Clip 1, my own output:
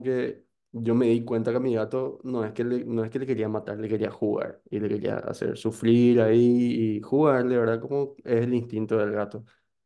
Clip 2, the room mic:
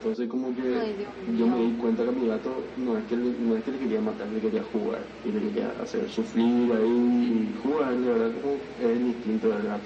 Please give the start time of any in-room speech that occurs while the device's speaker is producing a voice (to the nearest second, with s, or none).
1 s